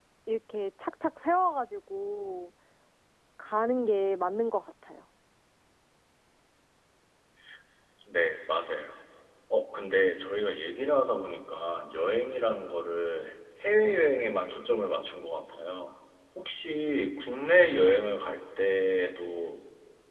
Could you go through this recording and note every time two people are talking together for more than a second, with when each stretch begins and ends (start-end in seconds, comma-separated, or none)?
none